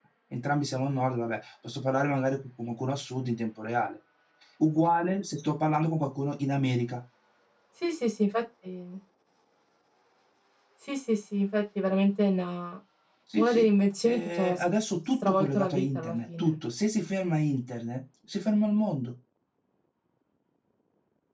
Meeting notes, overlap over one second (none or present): present